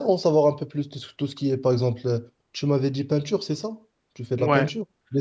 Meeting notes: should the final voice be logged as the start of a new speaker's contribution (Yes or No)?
Yes